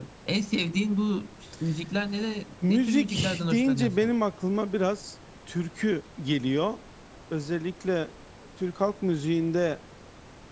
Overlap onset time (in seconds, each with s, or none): 2.6 s